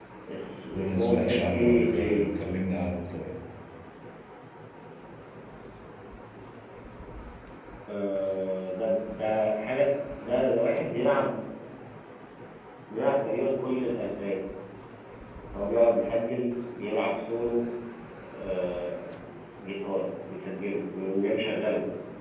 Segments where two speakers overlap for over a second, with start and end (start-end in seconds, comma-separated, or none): 0.7-2.1